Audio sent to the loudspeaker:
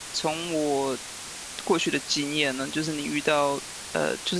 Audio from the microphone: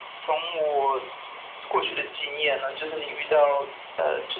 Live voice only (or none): none